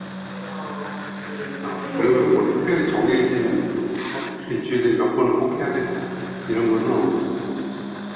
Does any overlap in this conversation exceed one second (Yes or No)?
Yes